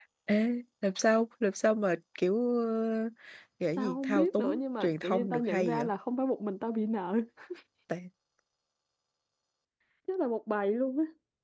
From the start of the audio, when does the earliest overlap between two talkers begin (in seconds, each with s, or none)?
3.8 s